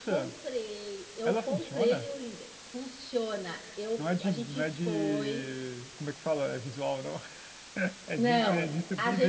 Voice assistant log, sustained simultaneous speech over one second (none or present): present